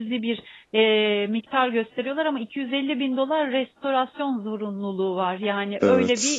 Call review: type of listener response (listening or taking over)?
listening